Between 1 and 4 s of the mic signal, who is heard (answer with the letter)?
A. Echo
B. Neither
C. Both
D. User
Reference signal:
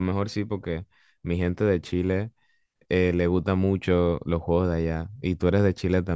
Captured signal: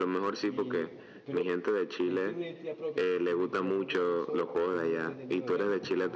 C